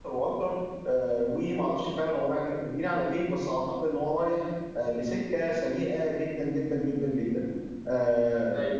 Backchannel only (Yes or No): Yes